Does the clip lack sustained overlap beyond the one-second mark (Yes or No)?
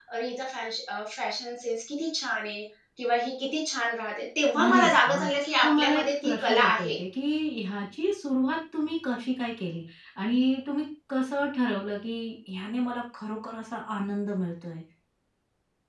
No